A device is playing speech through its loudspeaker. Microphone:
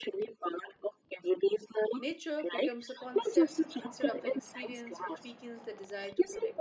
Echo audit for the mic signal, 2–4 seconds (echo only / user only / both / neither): both